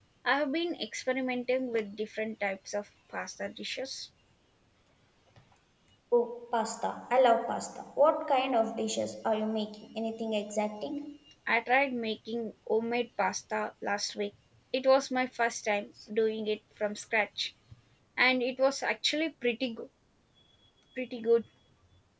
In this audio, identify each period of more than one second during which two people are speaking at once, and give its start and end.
none

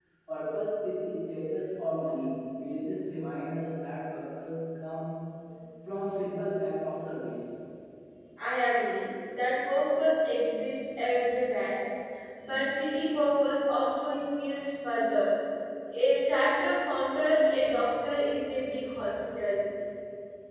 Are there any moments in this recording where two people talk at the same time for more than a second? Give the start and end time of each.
none

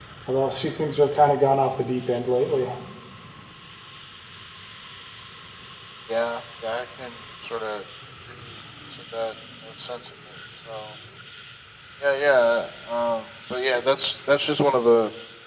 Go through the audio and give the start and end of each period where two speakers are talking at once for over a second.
none

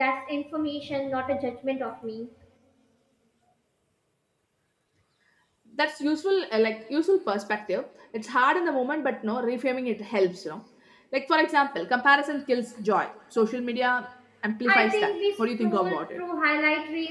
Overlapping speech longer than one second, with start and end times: 14.7-16.2

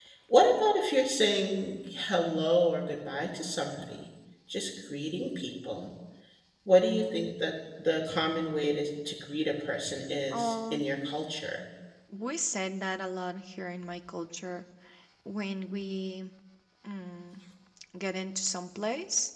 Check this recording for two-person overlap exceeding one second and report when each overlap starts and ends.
none

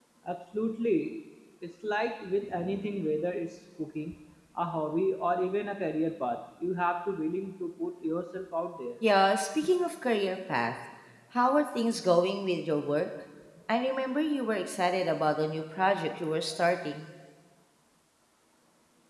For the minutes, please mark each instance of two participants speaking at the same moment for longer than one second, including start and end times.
none

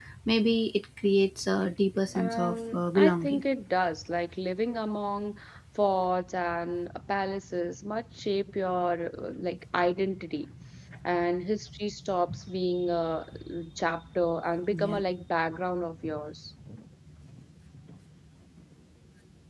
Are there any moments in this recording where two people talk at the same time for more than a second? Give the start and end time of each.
2.1-3.4

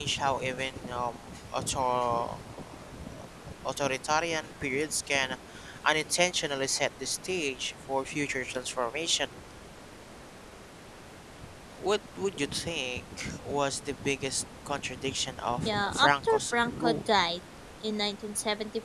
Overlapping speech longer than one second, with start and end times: 15.7-17.1

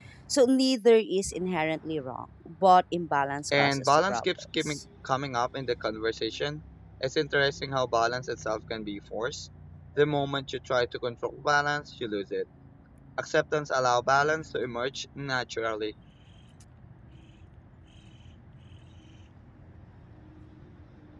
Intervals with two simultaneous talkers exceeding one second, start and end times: 3.6-4.8

